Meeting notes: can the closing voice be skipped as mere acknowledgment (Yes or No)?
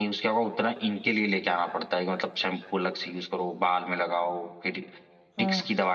Yes